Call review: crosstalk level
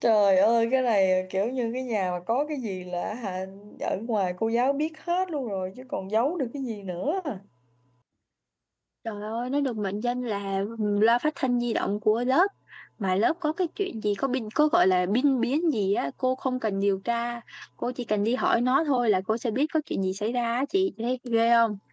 none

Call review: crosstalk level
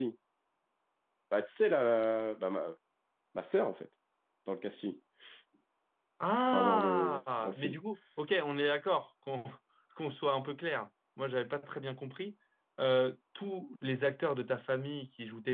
present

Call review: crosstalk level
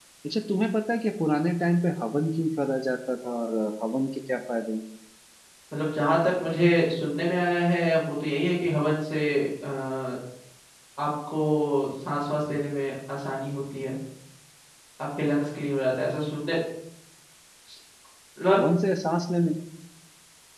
none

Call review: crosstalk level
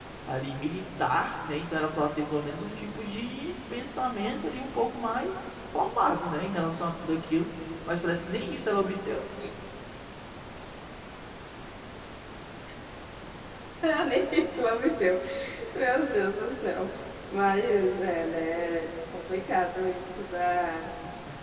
none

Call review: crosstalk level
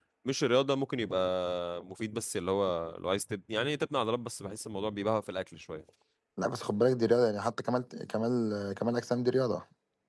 none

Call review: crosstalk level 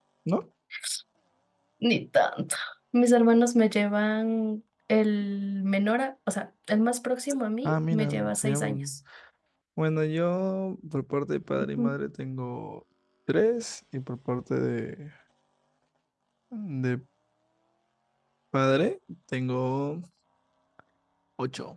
present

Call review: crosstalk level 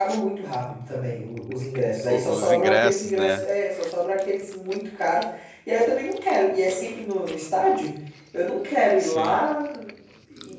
present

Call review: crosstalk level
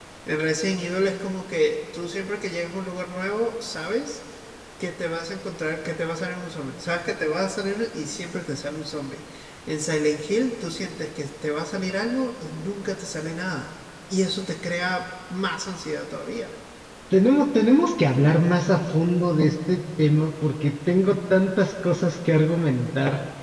none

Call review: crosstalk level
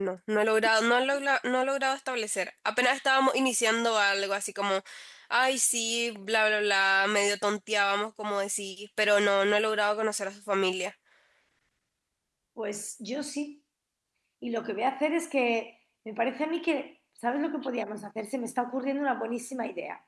none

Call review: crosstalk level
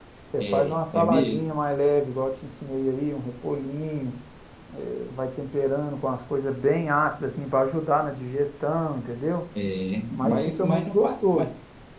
present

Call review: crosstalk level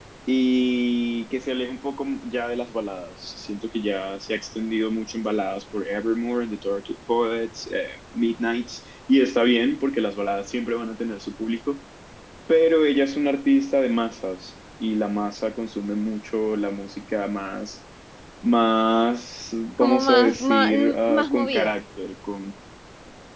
present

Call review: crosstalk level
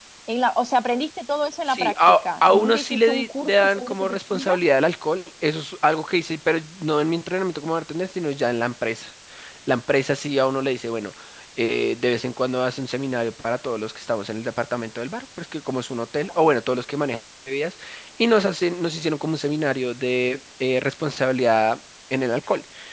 present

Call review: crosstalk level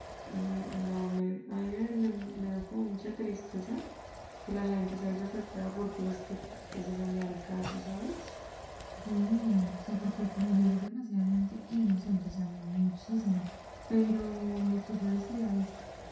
none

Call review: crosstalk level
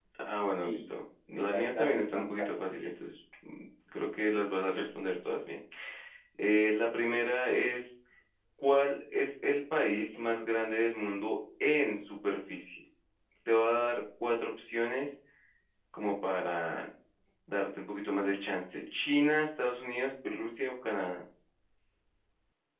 present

